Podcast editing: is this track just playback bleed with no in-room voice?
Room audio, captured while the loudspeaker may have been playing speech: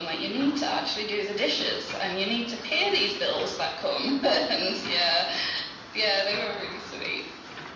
Yes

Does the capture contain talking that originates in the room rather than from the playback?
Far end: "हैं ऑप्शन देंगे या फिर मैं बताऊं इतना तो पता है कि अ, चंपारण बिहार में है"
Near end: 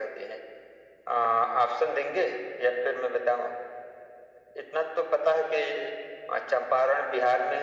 No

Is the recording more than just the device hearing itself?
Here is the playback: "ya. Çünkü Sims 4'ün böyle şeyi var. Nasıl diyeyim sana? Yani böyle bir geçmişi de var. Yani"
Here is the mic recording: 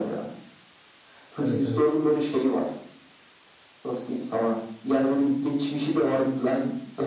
Yes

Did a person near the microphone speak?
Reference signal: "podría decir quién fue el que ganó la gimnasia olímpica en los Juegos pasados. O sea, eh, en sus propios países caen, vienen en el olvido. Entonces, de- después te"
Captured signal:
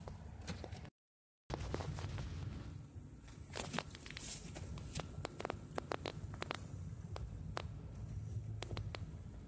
No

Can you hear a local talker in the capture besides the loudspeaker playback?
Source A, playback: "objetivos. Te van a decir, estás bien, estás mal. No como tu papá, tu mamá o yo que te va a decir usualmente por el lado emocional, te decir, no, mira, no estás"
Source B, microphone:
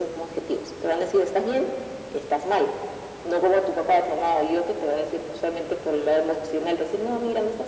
No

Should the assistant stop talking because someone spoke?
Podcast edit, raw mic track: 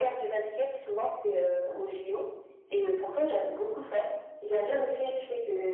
No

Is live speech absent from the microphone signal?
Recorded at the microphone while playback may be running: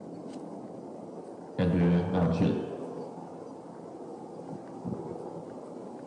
No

